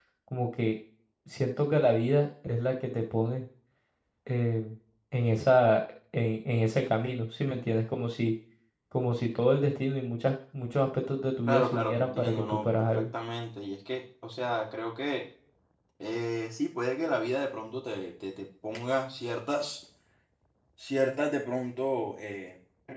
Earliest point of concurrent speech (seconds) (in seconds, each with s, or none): 11.5 s